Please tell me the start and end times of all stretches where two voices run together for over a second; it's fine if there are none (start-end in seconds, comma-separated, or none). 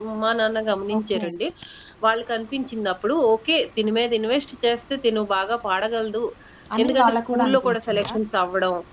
6.8-8.1